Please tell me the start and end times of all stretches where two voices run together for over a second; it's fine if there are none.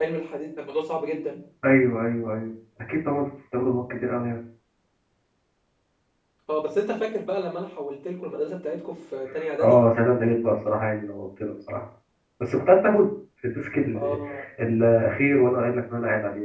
none

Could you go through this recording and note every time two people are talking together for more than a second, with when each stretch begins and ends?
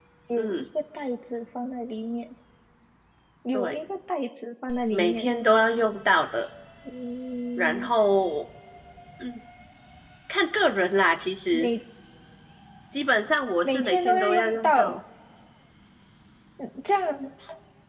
13.6-14.9

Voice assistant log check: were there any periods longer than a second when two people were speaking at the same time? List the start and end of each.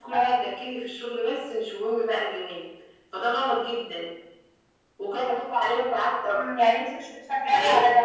none

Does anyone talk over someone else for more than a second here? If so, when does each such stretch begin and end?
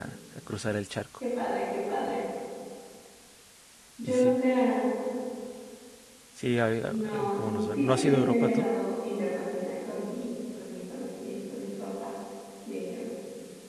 6.8-8.7

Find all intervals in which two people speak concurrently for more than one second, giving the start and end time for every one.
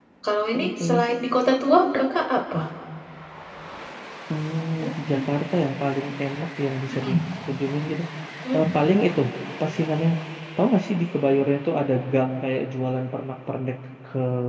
none

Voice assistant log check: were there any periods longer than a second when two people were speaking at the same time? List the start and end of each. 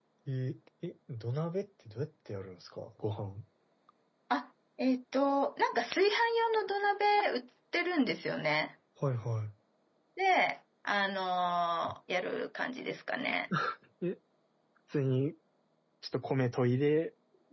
none

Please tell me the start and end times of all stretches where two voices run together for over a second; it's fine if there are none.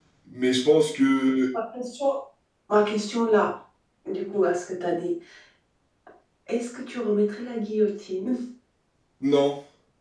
none

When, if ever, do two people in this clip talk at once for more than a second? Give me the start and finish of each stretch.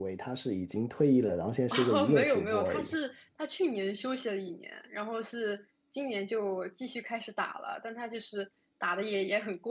1.7-3.0

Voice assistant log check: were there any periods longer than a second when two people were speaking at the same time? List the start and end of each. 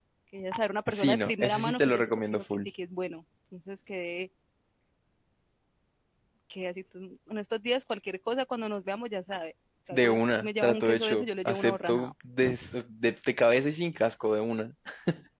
0.9-2.7, 9.9-12.1

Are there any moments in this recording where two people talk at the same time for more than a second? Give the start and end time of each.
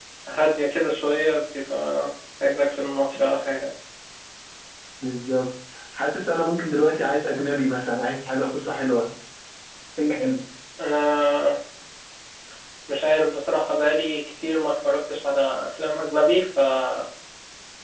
none

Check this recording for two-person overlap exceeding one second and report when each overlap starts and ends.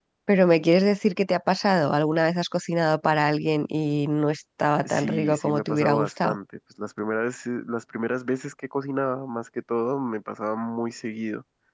4.8-6.4

